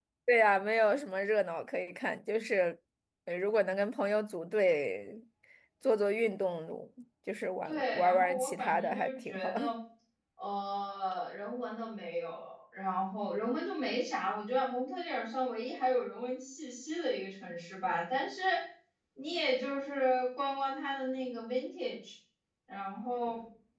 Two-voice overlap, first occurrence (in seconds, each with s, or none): 7.7 s